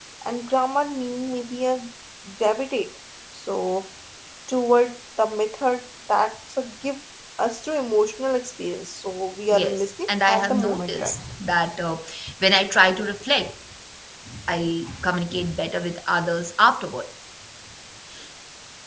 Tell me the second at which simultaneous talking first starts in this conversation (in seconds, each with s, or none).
9.5 s